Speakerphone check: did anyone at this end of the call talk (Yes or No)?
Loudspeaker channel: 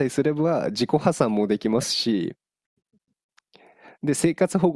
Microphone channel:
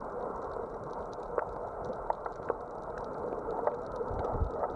No